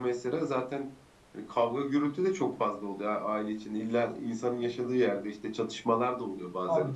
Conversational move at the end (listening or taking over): taking over